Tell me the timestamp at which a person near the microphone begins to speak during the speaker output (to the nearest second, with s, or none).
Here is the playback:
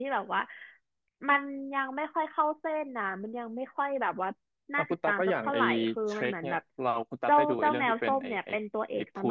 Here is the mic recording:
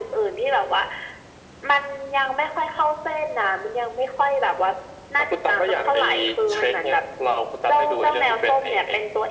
none